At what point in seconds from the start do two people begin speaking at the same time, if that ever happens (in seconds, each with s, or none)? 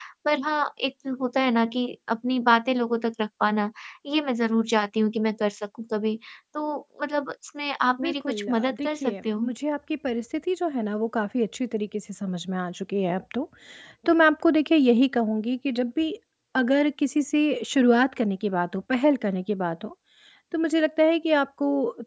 7.9 s